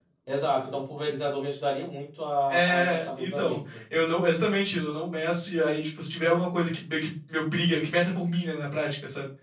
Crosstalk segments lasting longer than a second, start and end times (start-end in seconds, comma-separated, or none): 2.5-3.8